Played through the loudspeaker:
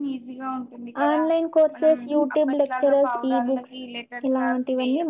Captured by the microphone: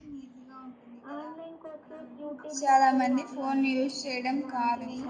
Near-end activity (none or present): present